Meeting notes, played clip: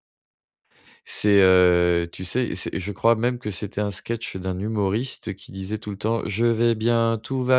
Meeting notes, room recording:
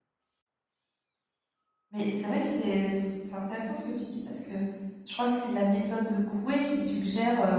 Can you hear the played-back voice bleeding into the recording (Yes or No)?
No